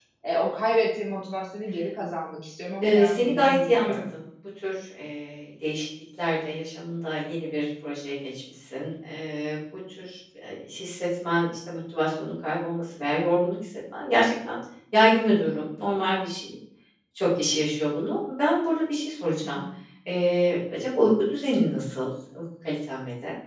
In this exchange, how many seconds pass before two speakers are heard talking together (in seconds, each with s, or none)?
2.8 s